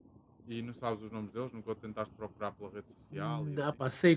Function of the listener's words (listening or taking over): taking over